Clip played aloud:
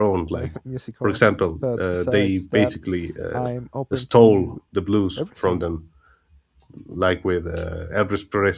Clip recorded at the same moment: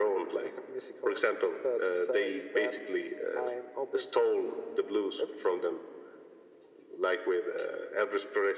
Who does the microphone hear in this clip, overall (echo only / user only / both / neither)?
echo only